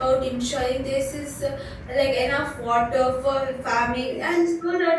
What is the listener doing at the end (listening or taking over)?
listening